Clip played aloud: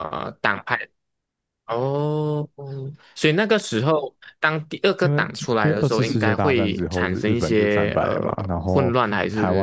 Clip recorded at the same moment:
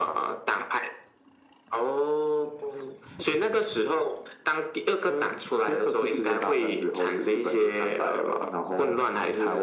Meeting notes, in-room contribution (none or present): none